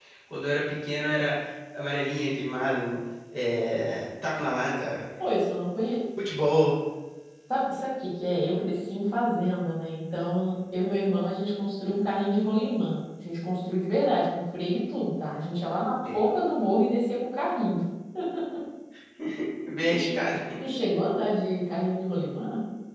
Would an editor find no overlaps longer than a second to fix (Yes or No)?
Yes